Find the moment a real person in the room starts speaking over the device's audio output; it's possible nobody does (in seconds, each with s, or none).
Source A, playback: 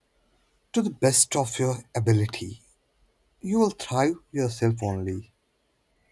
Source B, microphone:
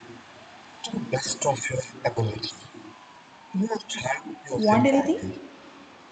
4.5 s